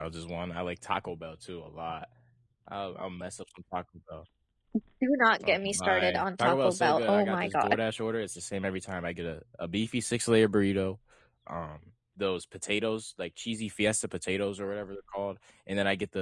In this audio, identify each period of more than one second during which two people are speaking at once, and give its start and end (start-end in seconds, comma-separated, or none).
5.4-7.8